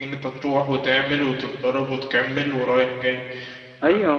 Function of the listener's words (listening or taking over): taking over